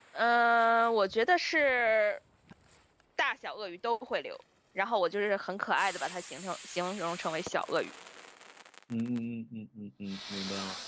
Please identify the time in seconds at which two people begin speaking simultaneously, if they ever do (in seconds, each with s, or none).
none